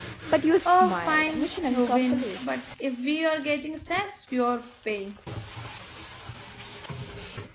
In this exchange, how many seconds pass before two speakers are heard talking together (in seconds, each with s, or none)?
0.7 s